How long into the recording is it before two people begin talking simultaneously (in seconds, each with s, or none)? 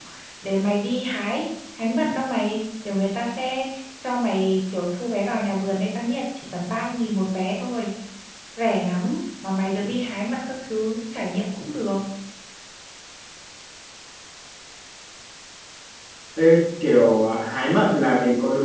none